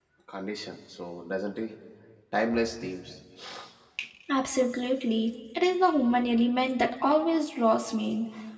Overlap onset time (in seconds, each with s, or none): none